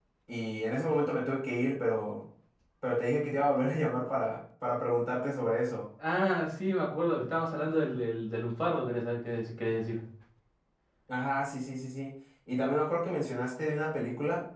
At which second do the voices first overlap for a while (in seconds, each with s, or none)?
none